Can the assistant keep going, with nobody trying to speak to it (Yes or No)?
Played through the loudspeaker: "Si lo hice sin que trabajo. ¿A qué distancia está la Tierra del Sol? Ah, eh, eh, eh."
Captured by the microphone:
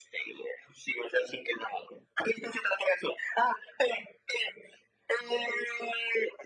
Yes